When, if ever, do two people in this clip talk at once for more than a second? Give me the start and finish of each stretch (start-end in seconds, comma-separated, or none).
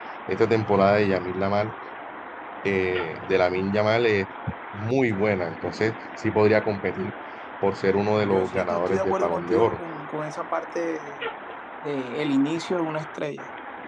8.3-9.8